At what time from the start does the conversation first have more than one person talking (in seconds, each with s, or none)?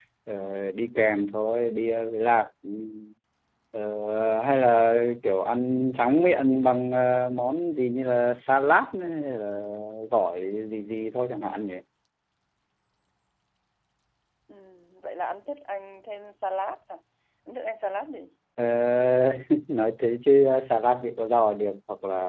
none